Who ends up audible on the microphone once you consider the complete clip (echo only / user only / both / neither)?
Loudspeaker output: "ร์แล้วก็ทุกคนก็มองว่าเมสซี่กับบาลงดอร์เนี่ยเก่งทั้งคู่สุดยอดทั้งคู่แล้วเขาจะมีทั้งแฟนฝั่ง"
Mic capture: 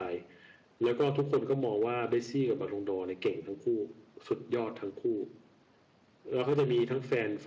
echo only